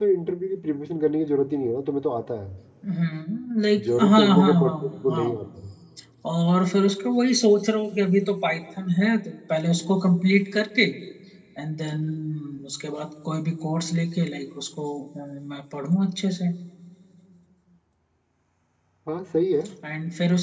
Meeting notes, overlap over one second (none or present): present